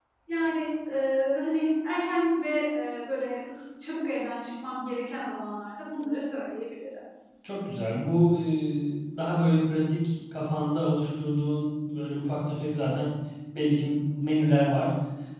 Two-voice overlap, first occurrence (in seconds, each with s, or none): none